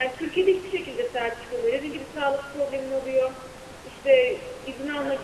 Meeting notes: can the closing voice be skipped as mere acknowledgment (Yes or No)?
Yes